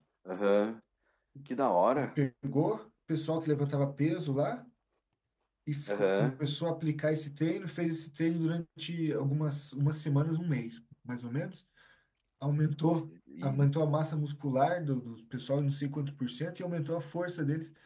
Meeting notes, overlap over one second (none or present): none